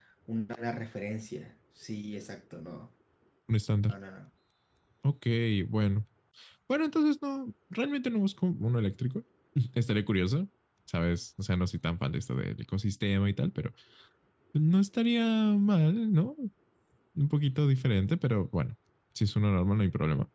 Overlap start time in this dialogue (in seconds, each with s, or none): none